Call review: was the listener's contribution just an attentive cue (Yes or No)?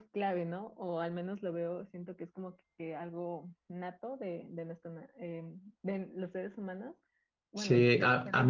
No